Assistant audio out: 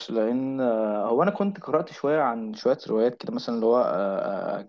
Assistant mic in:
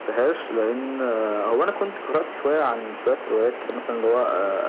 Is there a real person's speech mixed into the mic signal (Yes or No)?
No